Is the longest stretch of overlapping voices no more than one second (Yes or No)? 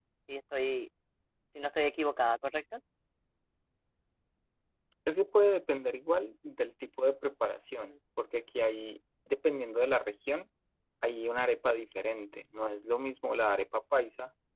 Yes